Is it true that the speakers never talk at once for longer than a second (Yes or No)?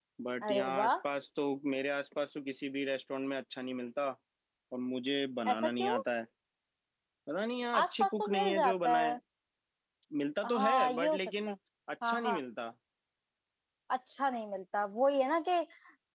No